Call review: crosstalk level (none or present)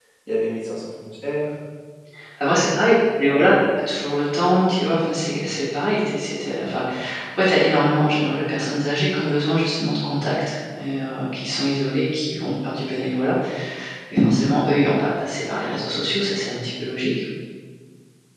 none